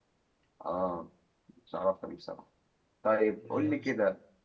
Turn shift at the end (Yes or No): No